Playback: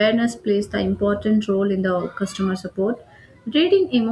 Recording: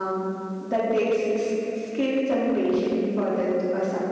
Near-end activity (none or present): present